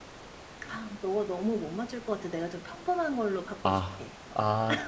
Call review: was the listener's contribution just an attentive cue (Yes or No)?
No